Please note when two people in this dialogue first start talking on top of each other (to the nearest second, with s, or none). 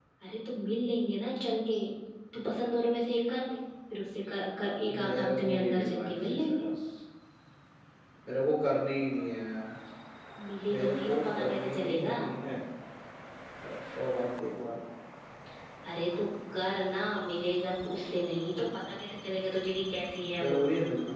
5 s